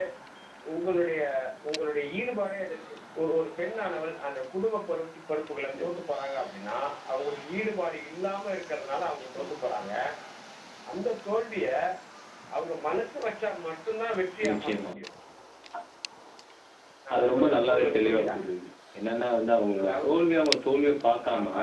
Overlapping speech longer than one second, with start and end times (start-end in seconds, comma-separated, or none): 17.1-18.4